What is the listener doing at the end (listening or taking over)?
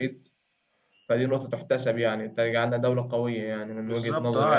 taking over